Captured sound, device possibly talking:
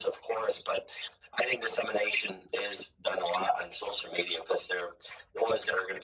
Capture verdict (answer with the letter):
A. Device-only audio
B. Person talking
A